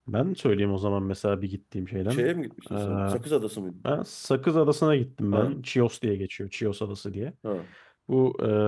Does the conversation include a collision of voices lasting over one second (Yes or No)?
No